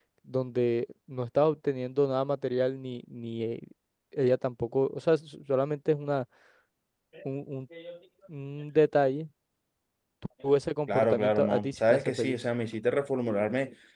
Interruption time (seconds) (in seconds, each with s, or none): 10.9 s